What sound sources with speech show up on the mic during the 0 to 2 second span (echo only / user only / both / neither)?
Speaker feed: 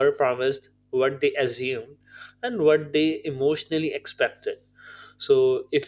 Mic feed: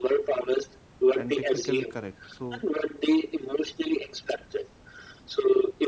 both